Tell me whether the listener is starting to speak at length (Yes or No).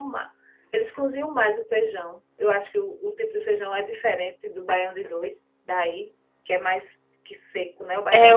Yes